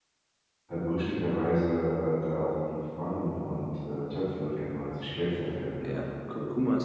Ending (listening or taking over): taking over